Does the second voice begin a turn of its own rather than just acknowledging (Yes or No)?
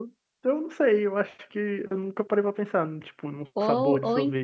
Yes